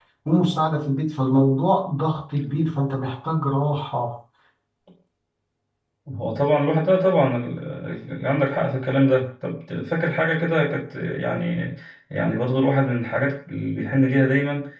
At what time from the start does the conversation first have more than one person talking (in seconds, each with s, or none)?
none